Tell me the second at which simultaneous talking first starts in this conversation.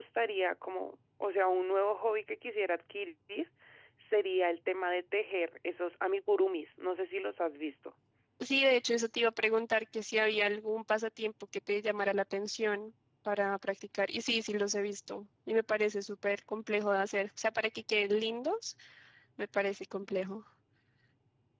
none

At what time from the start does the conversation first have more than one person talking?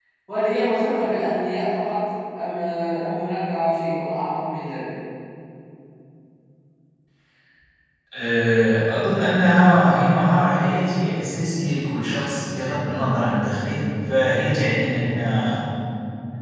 none

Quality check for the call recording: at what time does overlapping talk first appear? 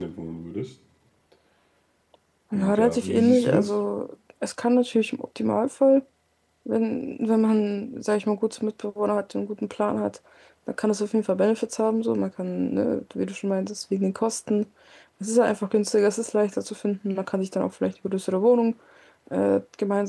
2.5 s

